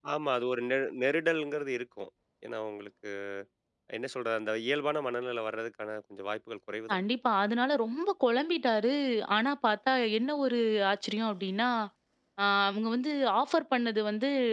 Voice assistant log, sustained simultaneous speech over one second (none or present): none